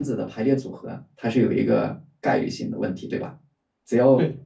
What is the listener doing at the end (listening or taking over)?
listening